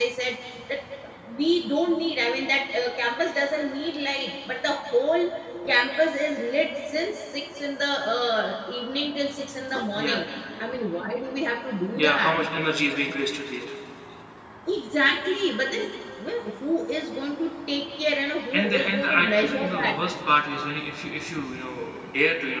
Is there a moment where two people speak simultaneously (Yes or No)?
Yes